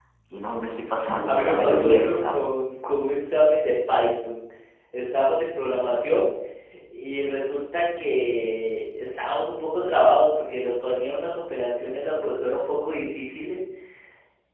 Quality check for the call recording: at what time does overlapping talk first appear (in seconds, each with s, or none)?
1.3 s